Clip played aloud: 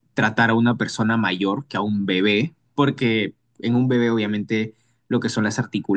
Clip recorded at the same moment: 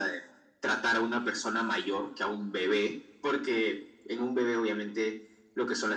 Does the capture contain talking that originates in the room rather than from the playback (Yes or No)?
No